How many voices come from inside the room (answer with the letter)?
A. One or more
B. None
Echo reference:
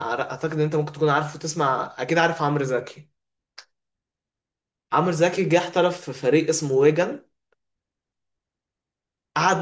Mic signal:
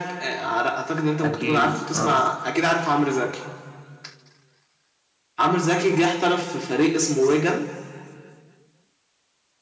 A